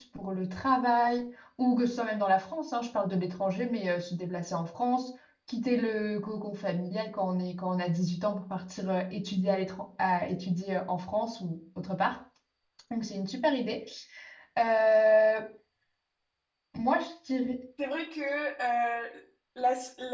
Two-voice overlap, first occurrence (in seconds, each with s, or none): none